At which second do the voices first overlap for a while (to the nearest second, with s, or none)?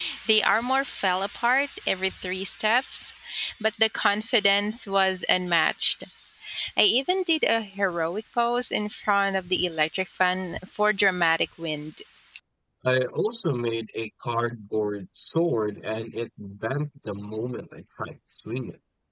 none